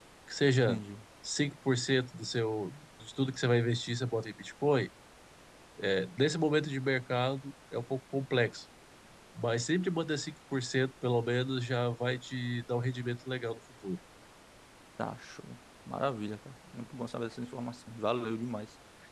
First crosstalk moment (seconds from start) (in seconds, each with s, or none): none